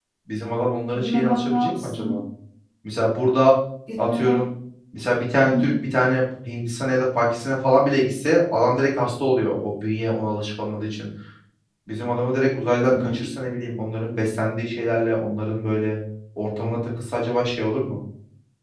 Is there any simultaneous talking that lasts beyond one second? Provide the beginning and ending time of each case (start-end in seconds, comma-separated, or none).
0.9-2.2